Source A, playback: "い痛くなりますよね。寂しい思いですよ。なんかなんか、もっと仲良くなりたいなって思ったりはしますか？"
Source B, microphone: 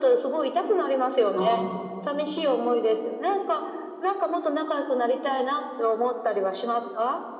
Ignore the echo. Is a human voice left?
Yes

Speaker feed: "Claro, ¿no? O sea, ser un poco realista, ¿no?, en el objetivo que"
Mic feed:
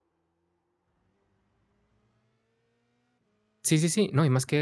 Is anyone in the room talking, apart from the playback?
Yes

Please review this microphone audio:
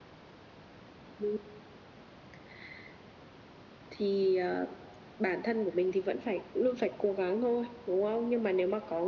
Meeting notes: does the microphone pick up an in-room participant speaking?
No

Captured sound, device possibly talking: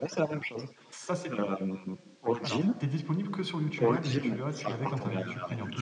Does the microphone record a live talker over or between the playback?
Yes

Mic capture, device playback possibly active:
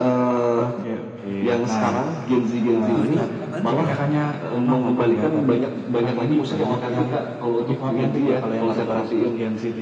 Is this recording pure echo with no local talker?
No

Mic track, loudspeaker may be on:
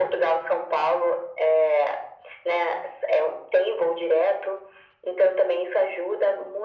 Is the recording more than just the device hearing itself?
No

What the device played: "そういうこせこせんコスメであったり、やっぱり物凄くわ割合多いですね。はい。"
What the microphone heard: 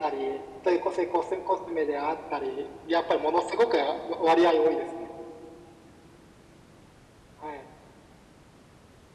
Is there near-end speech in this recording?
No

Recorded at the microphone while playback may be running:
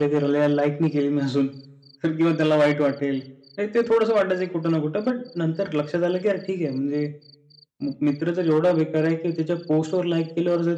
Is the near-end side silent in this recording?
No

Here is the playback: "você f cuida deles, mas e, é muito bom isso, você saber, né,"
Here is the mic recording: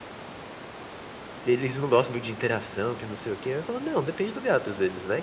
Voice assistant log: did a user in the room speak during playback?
Yes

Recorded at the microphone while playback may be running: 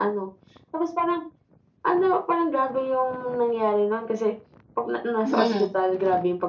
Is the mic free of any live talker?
No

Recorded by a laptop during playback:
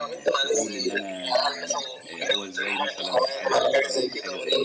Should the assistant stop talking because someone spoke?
Yes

